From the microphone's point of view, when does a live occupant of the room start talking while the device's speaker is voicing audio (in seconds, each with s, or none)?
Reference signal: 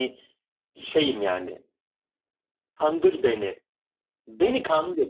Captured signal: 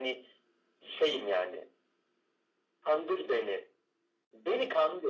none